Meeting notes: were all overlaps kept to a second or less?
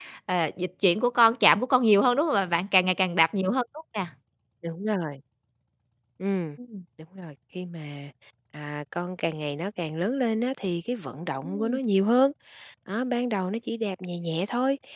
Yes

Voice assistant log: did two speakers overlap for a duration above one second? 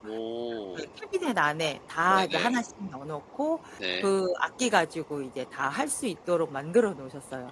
No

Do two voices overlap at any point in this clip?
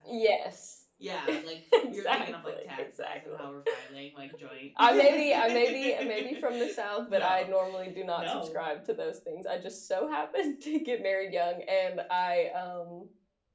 Yes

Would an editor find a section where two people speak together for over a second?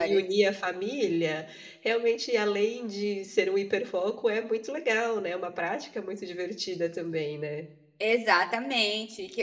No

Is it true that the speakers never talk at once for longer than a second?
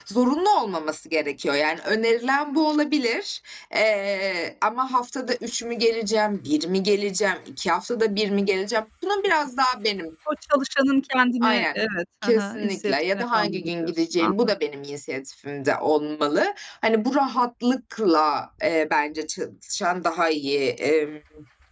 No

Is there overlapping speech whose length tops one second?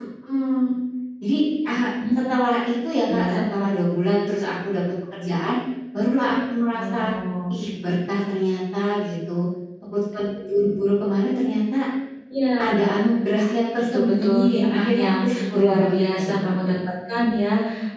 Yes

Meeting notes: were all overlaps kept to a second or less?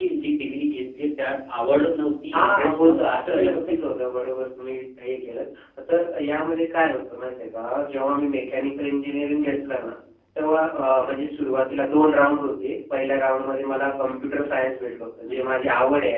No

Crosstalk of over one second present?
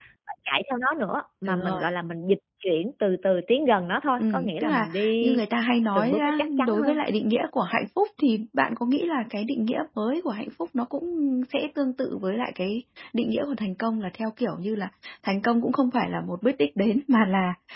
Yes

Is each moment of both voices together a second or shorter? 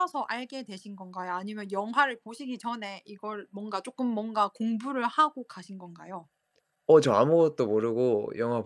Yes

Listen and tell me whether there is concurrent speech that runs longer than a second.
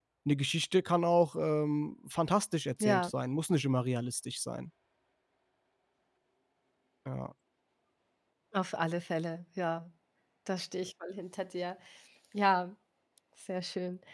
No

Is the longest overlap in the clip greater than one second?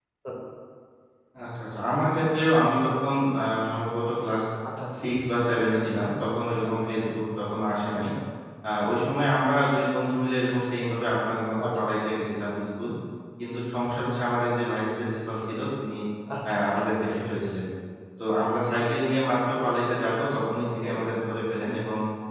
No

